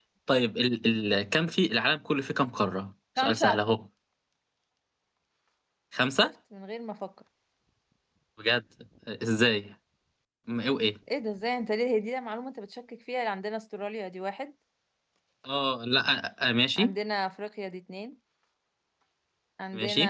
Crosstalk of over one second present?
No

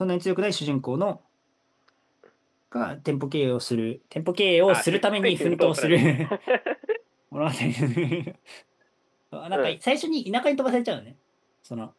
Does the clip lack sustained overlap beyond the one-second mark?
No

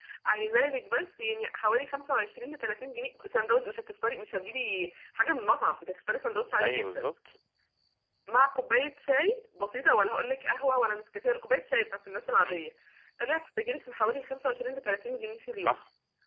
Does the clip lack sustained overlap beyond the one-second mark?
Yes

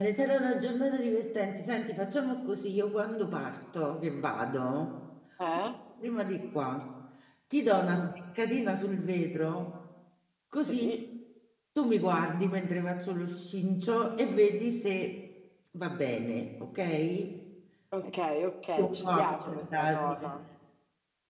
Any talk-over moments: Yes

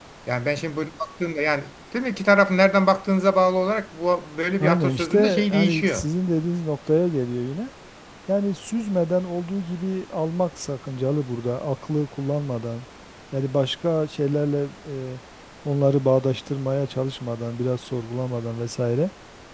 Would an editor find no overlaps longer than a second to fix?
No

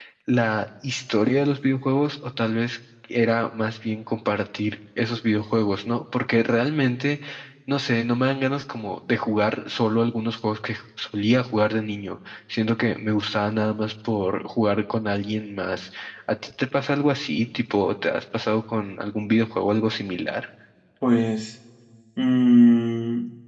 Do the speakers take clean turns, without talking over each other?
Yes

